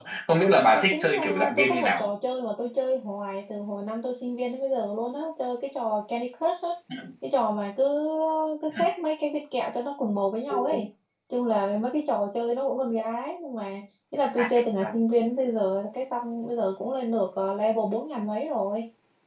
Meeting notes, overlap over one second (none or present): present